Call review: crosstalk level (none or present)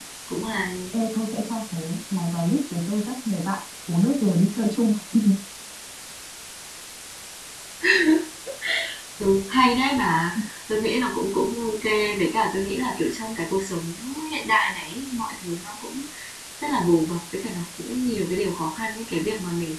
none